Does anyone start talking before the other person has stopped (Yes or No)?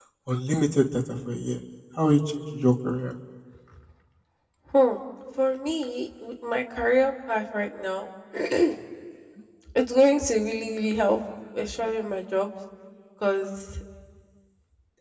No